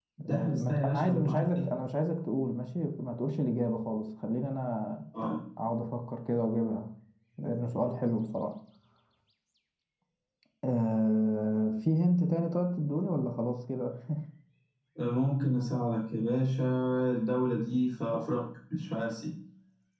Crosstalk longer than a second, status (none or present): present